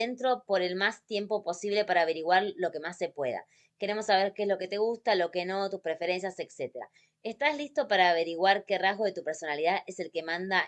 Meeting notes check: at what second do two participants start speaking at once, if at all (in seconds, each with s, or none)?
none